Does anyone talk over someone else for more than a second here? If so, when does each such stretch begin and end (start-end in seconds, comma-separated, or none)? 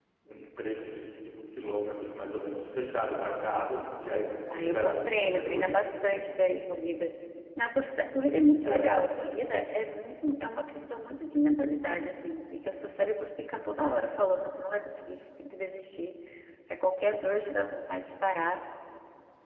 4.5-5.8